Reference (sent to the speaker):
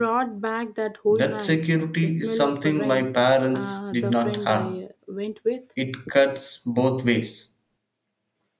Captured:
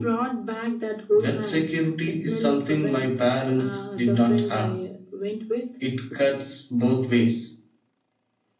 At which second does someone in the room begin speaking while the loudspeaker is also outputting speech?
none

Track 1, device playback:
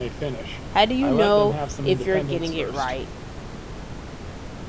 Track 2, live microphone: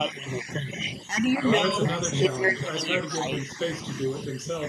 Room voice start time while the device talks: 1 s

